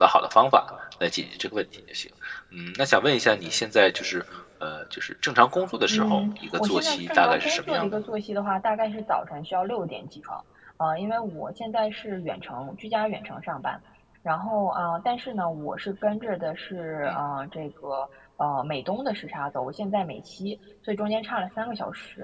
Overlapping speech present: Yes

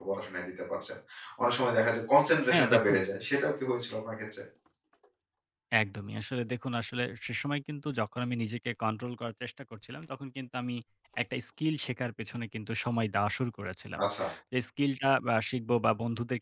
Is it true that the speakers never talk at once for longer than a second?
Yes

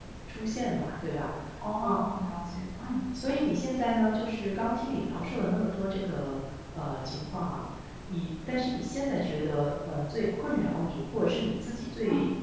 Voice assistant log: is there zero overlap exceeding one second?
Yes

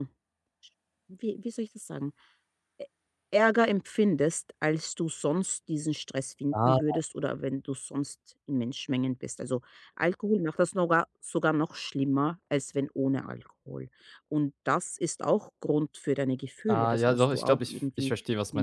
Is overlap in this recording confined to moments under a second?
No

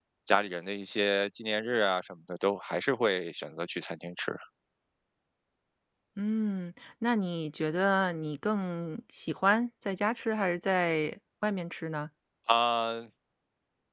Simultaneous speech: No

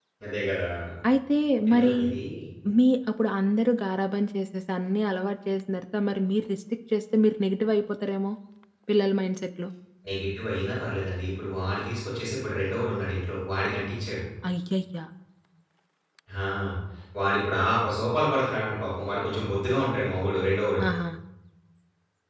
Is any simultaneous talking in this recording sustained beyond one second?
No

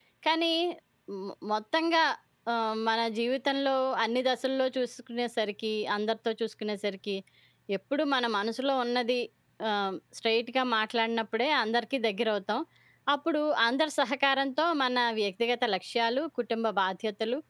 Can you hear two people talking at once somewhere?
No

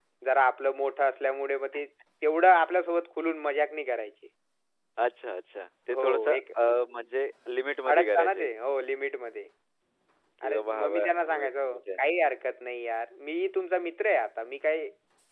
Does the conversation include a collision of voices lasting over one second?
Yes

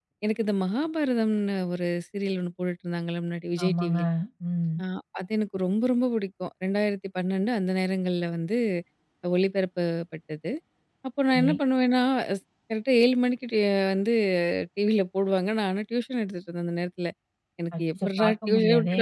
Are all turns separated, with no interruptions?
No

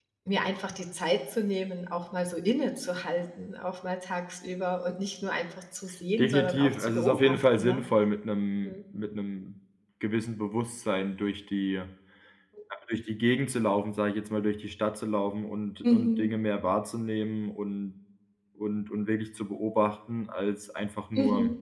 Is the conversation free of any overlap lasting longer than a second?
No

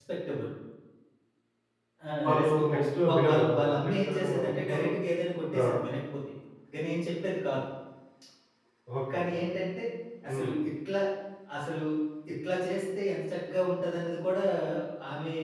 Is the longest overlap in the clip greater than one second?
Yes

